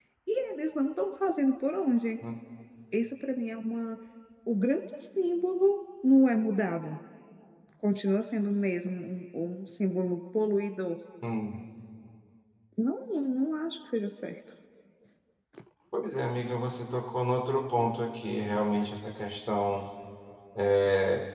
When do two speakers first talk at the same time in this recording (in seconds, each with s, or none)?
none